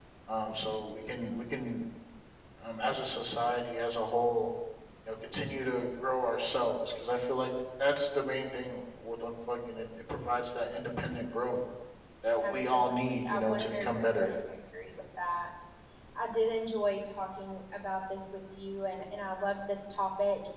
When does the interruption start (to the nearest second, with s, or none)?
12 s